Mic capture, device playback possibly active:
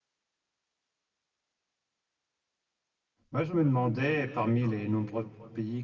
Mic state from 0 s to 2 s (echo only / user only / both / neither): neither